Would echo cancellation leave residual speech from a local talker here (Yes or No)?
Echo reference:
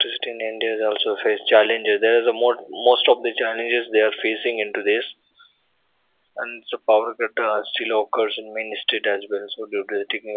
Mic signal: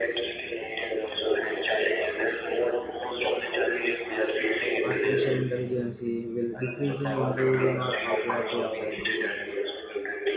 Yes